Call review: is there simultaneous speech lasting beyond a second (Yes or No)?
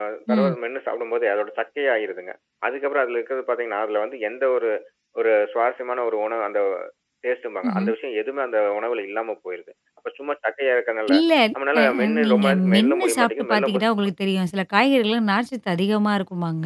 Yes